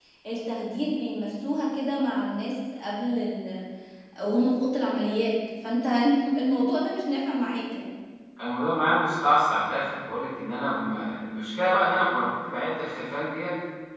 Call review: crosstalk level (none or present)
none